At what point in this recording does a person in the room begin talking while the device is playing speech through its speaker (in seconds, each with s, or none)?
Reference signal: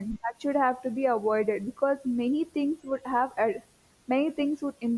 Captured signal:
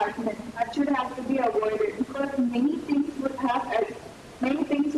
none